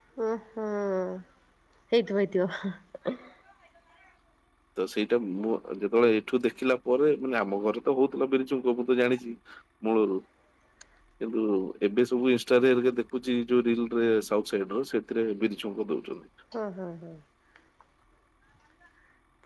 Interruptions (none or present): none